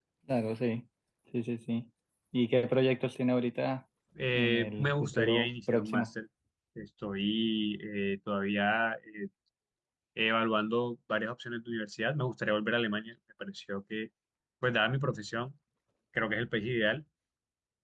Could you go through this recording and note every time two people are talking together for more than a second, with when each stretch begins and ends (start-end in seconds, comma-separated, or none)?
4.3-6.1